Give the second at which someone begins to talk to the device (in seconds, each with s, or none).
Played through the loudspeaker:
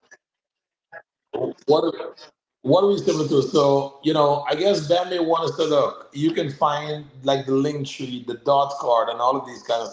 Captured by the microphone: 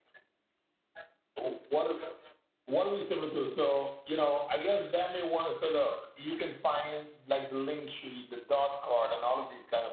none